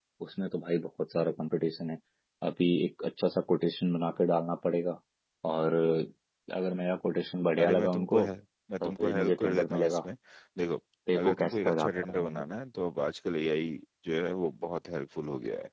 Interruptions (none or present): present